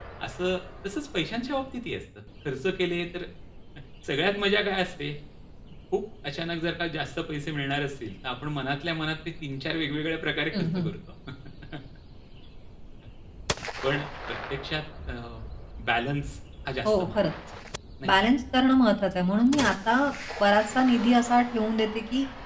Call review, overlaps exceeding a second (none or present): none